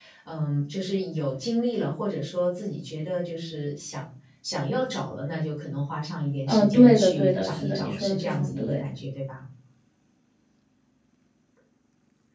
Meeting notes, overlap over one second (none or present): present